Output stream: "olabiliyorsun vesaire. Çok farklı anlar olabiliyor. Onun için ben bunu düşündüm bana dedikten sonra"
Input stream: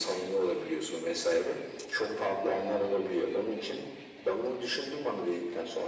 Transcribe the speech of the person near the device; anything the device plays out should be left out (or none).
none